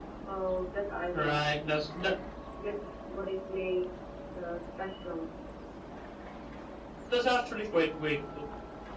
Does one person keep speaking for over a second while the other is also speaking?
No

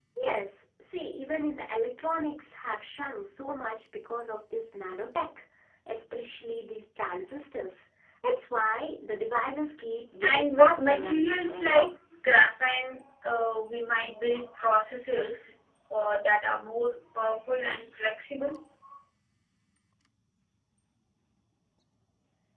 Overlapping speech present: Yes, from 10.2 s

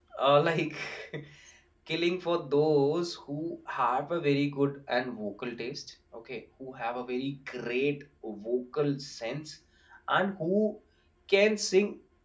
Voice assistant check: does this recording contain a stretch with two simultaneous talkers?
No

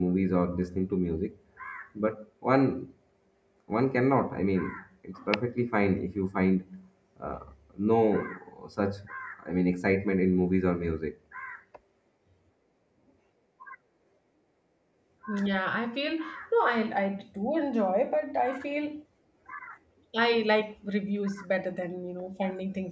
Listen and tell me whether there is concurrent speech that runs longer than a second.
No

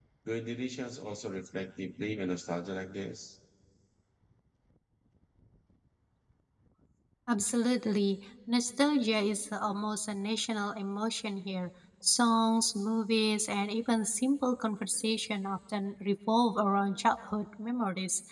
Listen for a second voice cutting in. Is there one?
No

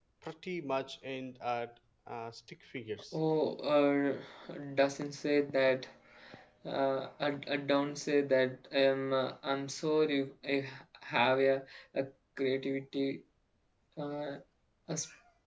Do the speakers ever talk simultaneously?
No

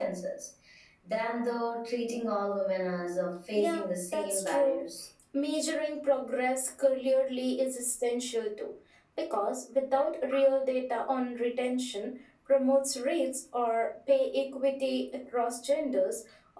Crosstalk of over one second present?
Yes, from 3.5 s

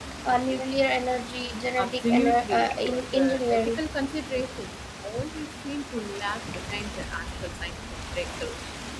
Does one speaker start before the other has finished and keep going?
Yes, from 1.8 s

